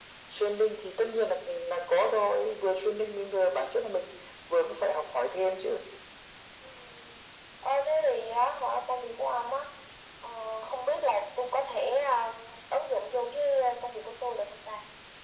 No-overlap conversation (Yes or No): Yes